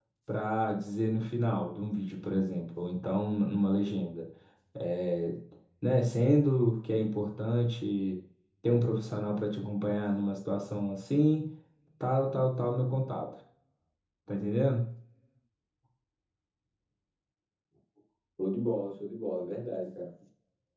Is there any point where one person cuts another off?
No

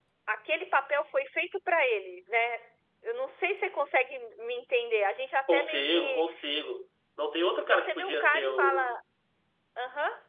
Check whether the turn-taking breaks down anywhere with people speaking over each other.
Yes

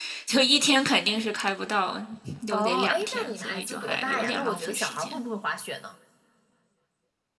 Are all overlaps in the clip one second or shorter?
No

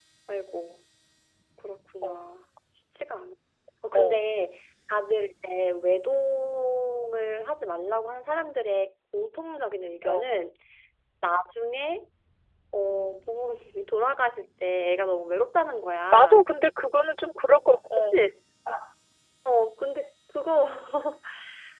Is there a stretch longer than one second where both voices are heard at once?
No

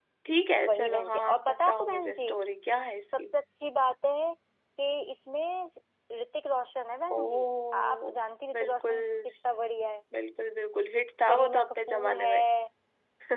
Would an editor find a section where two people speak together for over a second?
Yes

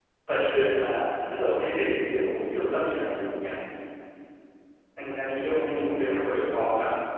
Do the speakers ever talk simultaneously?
No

